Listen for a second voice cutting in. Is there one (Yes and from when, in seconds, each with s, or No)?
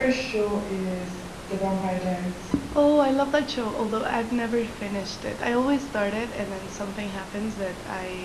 No